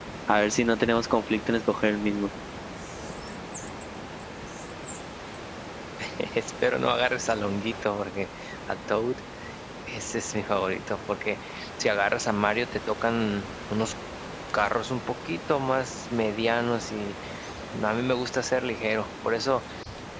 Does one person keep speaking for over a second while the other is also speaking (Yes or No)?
No